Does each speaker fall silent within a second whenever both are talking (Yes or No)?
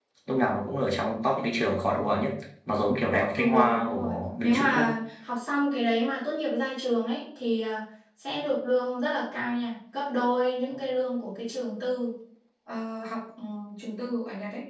No